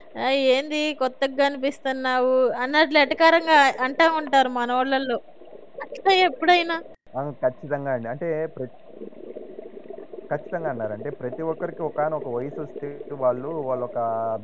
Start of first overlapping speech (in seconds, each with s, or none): none